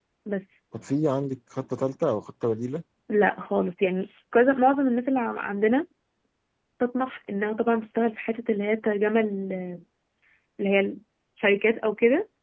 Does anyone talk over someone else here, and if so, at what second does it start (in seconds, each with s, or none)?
none